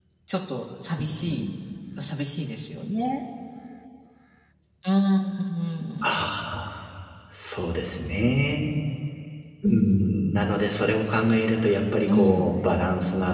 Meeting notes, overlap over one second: none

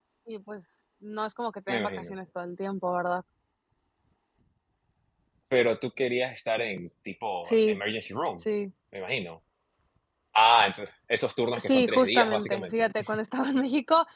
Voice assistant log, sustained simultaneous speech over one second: present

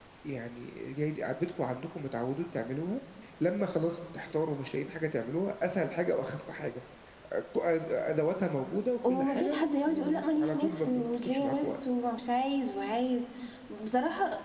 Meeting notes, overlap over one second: present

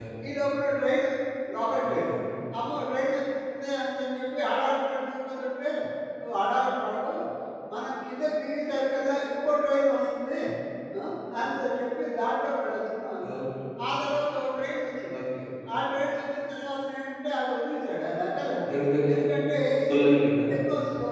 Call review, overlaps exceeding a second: none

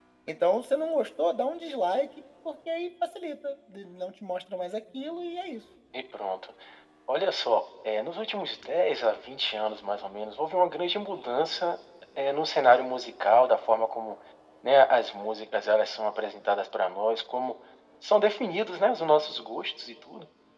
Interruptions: none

